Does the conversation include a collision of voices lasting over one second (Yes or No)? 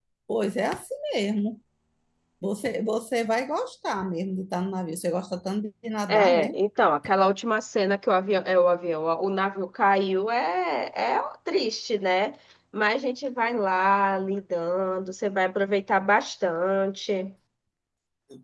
No